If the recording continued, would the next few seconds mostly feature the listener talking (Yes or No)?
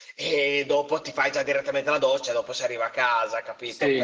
Yes